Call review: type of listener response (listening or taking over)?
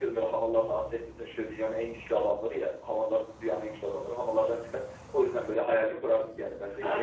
taking over